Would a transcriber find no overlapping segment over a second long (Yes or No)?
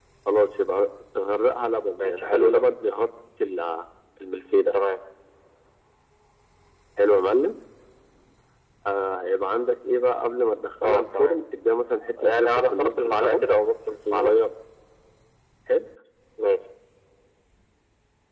No